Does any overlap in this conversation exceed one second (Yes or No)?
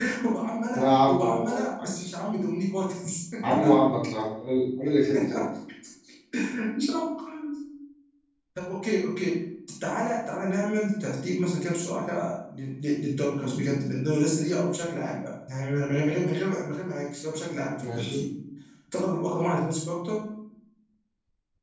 Yes